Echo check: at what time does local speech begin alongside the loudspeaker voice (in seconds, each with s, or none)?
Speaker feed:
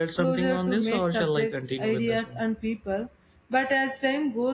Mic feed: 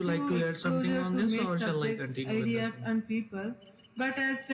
none